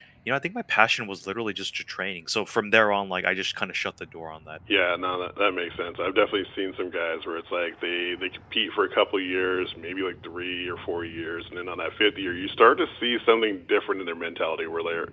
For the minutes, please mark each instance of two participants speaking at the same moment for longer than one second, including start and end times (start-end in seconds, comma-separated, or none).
none